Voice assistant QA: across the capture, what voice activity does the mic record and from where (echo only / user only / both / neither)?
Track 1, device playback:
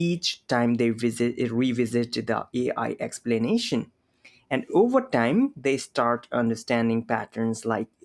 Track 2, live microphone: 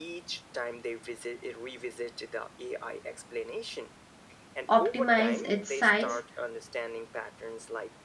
both